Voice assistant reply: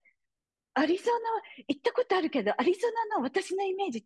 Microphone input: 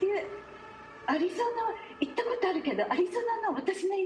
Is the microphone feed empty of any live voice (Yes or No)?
Yes